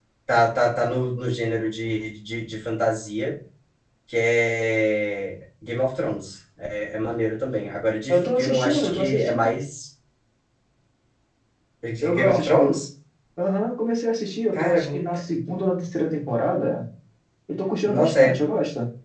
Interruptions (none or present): present